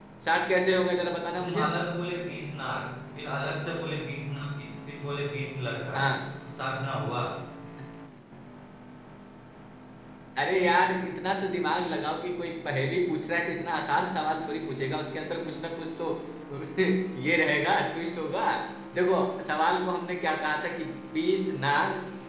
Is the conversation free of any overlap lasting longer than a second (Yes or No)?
Yes